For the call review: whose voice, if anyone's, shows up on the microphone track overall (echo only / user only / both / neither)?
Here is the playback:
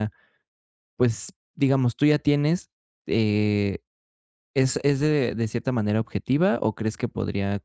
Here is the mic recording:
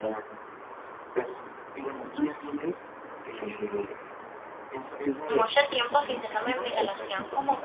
both